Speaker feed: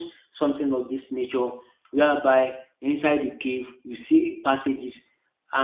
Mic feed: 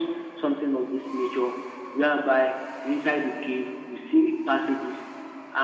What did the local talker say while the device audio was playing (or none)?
none